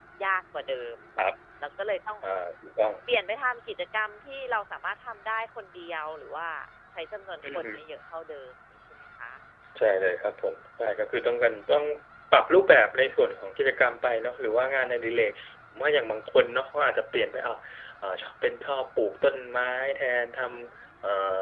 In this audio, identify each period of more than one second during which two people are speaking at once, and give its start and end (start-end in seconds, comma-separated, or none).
none